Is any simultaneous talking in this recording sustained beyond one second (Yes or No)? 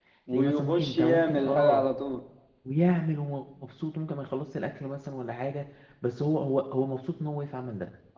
Yes